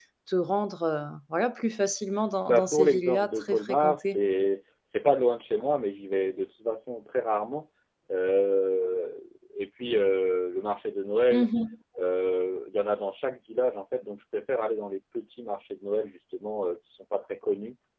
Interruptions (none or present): present